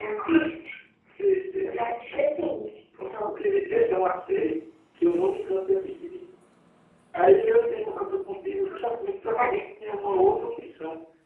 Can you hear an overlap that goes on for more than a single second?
No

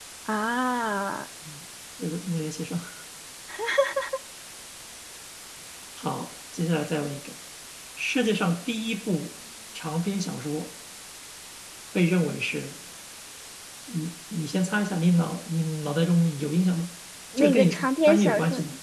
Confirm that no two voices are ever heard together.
No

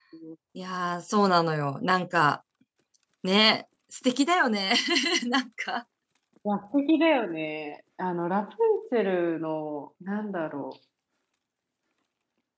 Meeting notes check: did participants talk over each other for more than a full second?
No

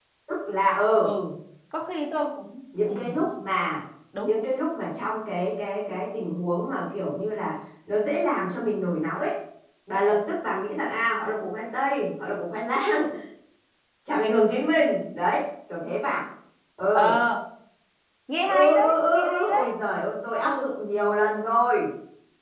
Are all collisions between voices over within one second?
No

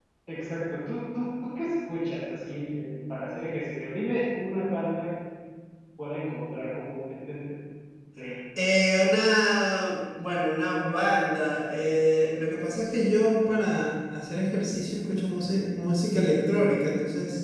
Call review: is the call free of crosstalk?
Yes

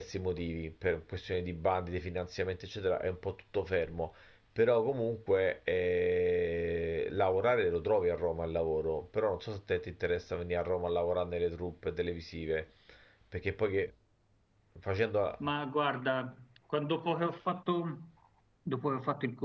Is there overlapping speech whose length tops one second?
No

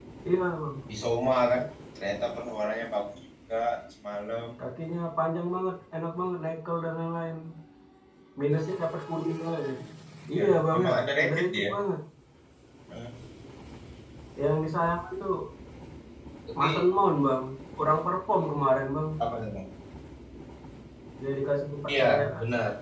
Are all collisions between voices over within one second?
No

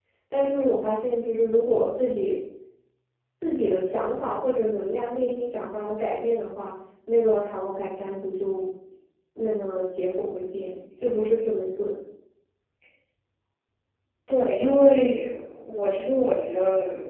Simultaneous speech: No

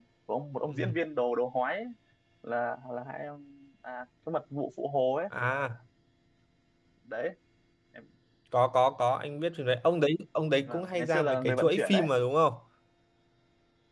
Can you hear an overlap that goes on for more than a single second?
Yes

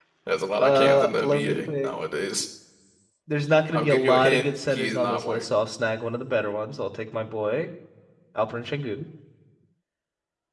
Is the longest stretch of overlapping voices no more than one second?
No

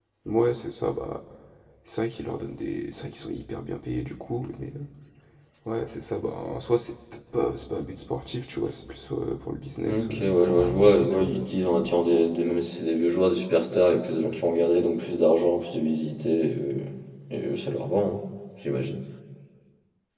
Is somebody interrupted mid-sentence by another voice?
Yes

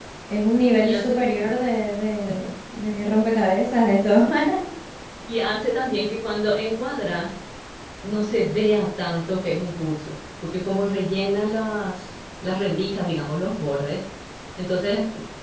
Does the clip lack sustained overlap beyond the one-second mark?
Yes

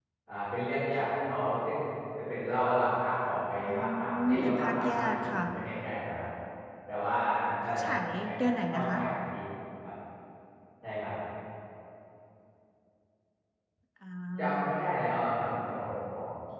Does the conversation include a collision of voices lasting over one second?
Yes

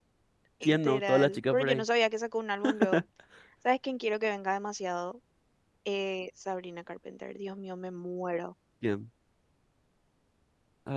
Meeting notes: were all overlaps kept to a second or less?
No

